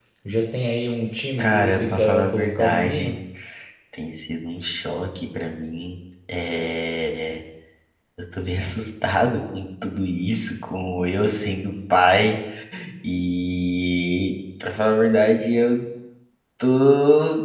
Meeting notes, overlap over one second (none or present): present